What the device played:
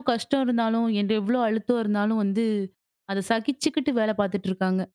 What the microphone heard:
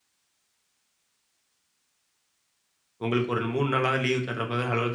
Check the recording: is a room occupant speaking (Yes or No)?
Yes